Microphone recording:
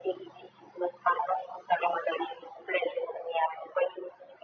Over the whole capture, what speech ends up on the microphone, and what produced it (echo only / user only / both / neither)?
echo only